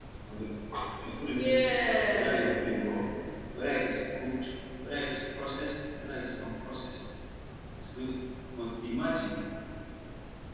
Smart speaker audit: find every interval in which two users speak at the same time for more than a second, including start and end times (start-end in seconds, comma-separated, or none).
1.2-2.9